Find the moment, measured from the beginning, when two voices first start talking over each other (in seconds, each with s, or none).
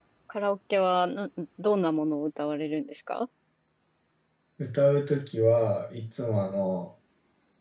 none